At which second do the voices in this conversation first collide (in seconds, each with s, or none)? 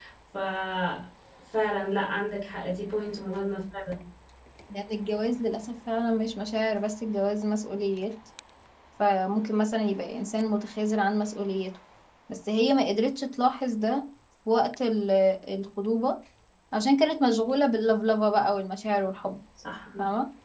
none